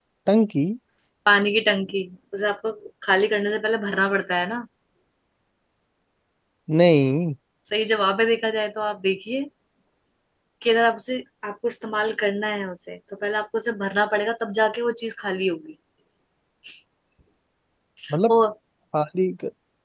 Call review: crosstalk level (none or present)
none